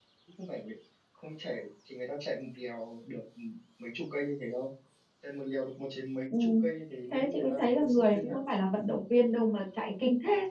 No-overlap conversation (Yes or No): No